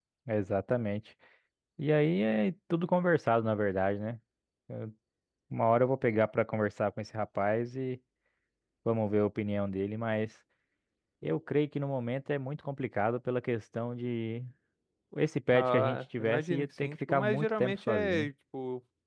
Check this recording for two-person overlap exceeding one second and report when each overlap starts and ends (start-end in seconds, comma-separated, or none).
15.5-18.3